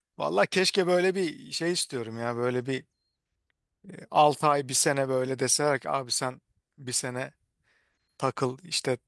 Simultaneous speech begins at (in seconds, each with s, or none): none